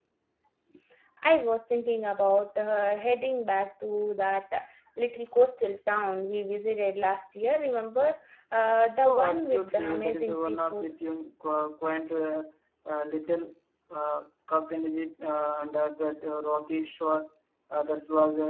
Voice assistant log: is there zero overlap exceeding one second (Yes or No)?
No